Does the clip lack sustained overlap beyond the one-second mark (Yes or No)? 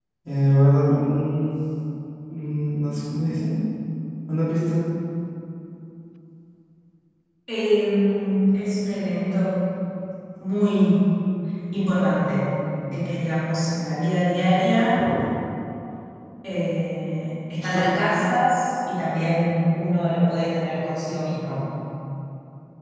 Yes